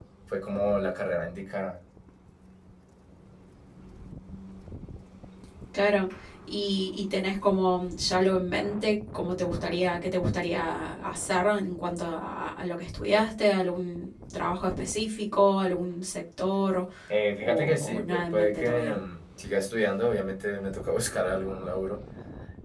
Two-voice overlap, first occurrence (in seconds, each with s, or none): 17.4 s